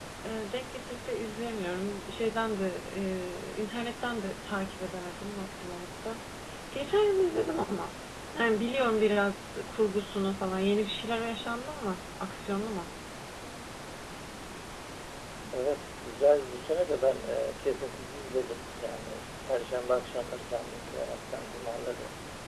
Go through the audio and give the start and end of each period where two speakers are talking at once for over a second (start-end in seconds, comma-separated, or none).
none